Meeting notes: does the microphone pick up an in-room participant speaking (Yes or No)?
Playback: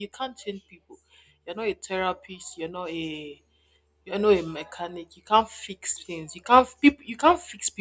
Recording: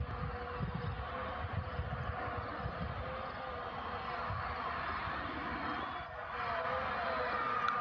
No